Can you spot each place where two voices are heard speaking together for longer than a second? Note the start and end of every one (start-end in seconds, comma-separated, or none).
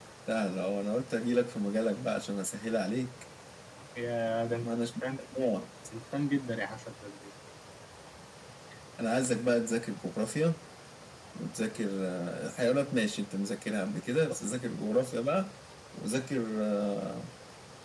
none